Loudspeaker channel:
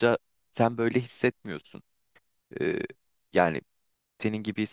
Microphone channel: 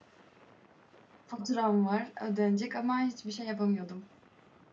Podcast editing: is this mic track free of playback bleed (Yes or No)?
Yes